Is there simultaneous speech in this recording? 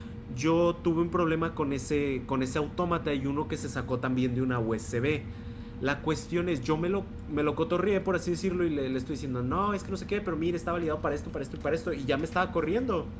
No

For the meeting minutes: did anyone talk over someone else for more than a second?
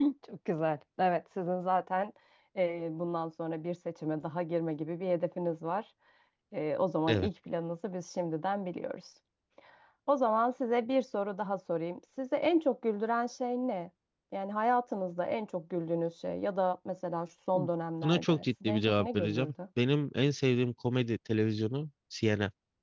Yes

